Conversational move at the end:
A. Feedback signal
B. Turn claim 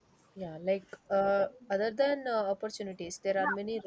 B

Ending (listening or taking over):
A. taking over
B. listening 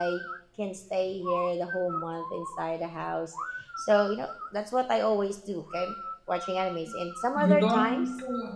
A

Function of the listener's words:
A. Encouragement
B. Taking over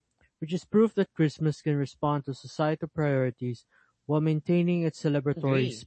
B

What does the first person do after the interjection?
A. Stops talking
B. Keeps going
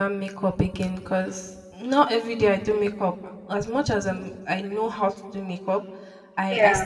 B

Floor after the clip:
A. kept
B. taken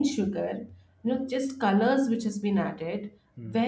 A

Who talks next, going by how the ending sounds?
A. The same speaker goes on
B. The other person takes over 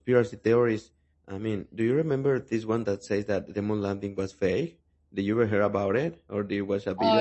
B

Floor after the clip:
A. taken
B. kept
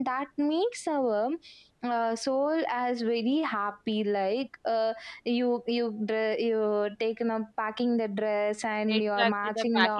A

